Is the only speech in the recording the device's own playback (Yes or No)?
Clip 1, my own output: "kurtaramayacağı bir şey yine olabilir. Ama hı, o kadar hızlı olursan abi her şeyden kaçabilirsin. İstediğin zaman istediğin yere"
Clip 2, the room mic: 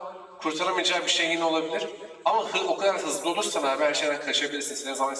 Yes